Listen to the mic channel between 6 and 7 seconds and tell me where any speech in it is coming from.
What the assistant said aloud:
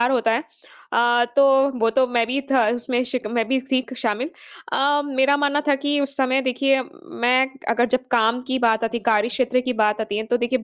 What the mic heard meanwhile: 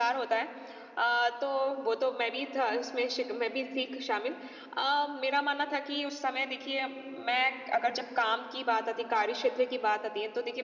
echo only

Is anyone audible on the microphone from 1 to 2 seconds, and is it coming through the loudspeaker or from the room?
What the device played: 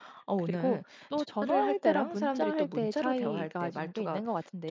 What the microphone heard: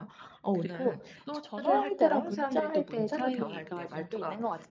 echo only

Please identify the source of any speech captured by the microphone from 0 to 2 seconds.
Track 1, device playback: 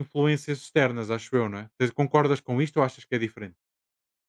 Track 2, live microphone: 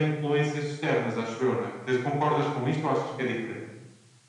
echo only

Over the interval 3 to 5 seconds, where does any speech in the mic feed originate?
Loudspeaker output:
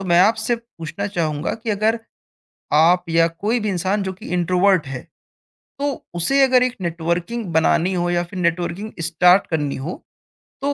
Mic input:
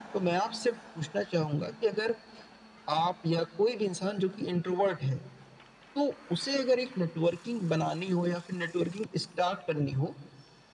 echo only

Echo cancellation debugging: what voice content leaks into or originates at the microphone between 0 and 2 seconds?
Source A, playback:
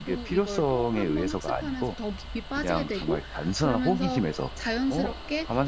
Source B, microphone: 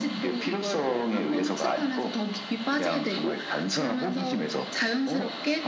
echo only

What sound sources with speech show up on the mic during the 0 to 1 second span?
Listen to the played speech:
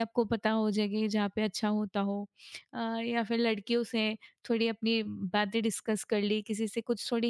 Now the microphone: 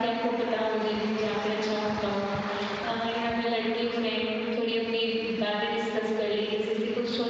echo only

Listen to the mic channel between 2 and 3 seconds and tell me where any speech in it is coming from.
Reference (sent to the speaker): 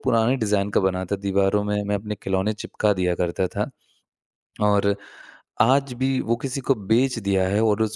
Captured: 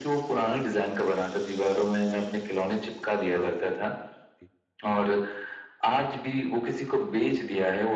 echo only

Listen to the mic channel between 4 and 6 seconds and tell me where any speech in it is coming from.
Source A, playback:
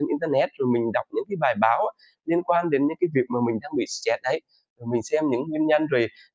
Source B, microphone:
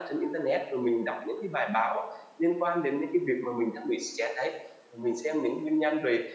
echo only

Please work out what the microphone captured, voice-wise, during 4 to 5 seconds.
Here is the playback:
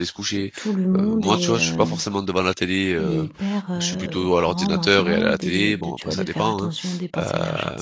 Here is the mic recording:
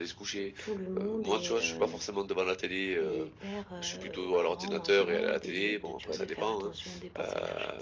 echo only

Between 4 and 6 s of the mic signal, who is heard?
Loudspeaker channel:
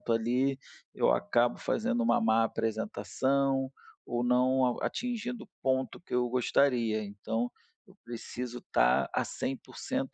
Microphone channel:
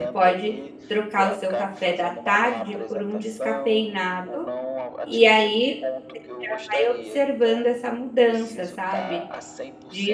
both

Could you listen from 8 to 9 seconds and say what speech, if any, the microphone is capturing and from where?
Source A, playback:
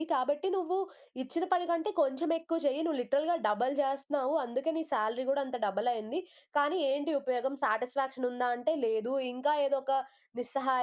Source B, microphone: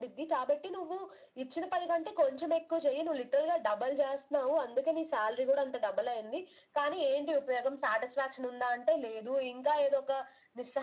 echo only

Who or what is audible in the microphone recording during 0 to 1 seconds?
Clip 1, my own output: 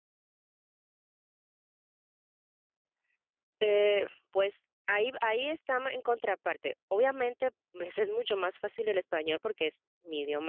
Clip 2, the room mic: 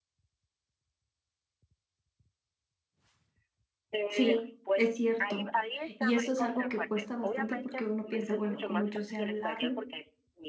neither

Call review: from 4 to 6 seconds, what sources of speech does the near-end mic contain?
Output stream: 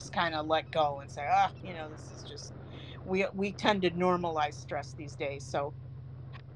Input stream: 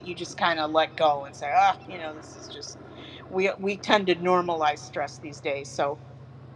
echo only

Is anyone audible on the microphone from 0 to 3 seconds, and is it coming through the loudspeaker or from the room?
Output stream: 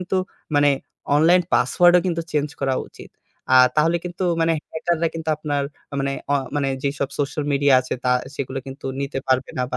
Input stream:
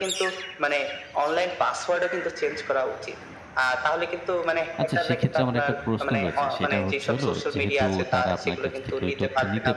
echo only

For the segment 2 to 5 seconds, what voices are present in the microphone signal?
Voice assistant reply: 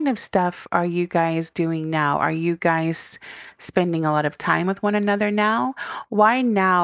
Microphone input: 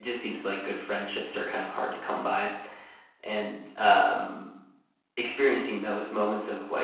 user only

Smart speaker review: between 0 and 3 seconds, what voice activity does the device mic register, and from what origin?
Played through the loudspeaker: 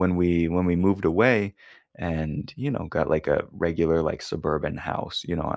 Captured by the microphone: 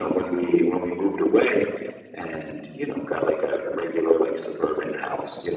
echo only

